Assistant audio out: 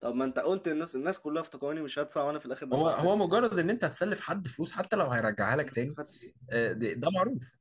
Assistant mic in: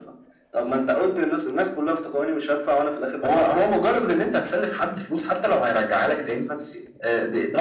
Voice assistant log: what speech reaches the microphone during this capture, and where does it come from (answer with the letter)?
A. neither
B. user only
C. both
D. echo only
D